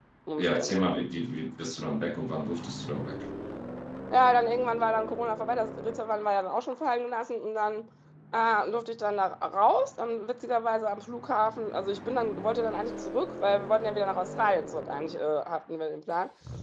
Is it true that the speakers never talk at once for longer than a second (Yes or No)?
Yes